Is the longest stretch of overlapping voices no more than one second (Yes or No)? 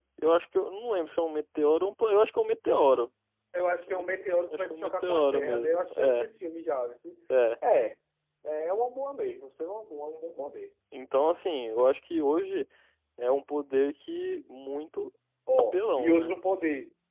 No